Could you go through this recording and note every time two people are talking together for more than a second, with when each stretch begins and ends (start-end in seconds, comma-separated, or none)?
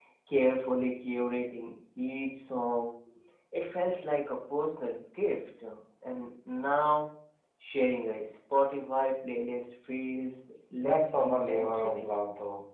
10.8-12.1